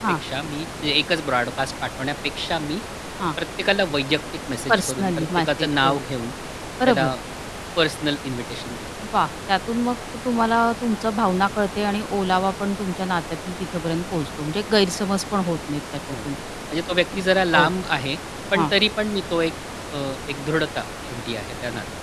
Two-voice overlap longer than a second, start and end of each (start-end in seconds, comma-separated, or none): 4.7-5.9